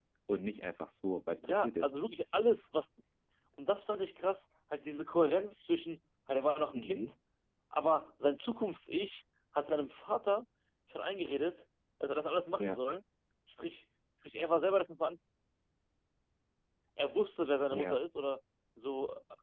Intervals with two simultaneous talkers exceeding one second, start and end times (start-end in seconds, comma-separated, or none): none